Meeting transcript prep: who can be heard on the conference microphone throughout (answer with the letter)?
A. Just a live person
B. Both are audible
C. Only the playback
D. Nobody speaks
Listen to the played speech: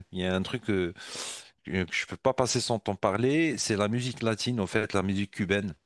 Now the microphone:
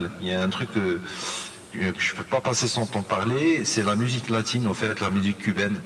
C